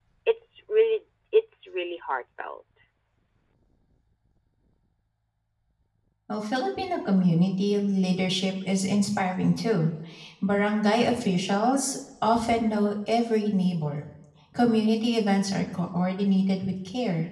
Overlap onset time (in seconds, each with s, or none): none